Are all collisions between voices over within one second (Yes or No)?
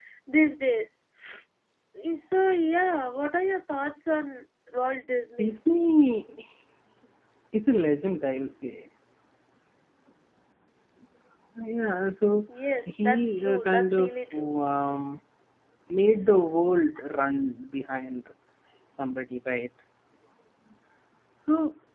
No